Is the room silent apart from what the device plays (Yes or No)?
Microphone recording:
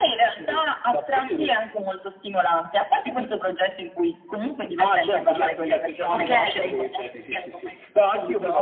No